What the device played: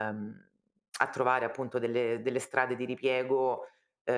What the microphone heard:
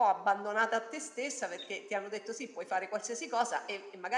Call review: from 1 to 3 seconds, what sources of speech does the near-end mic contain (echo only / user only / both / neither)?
user only